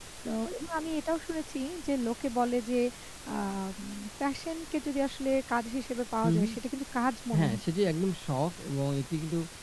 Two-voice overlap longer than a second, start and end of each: none

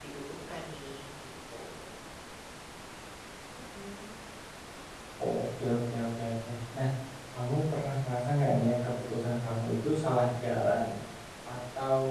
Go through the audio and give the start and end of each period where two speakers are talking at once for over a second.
none

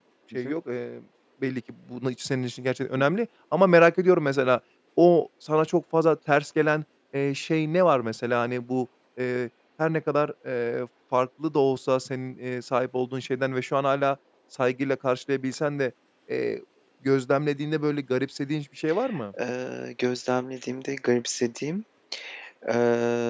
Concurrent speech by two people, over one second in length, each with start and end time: none

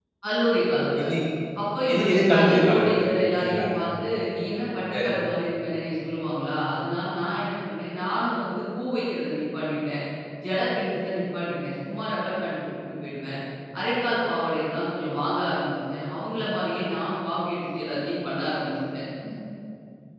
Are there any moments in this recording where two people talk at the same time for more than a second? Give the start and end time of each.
1.9-3.7

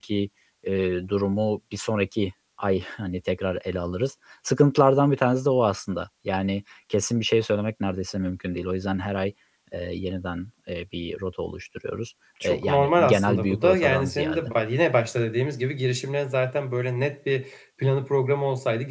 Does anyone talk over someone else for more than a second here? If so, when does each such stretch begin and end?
12.4-14.5

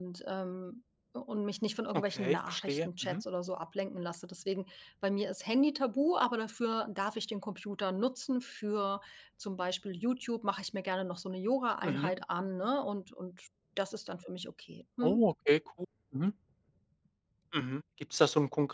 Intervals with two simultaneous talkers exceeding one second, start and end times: 1.9-3.2

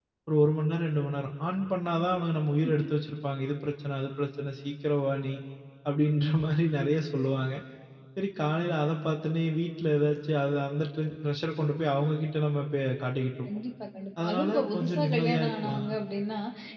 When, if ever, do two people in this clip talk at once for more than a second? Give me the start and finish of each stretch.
14.2-15.9

